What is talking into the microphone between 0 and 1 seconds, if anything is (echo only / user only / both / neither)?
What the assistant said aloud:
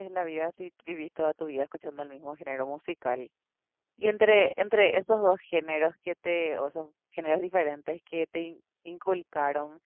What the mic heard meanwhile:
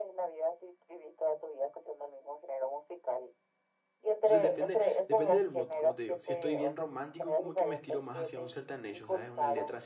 echo only